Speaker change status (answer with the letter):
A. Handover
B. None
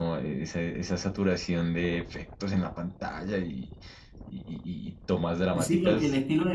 A